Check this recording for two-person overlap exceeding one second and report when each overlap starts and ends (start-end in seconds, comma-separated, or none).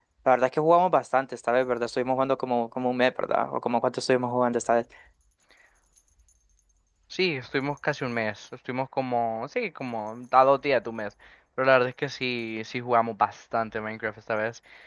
none